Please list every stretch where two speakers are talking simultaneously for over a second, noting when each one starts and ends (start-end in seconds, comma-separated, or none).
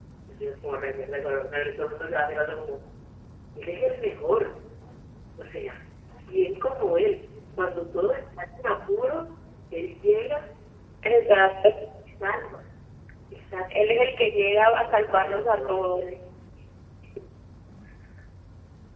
14.7-16.0